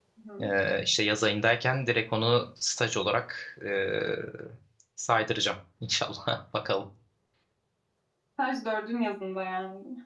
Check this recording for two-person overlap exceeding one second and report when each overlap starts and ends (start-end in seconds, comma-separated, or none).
none